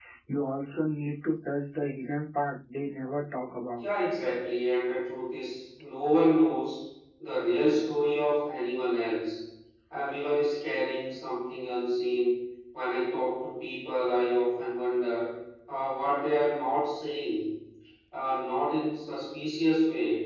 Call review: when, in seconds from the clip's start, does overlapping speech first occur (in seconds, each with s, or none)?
none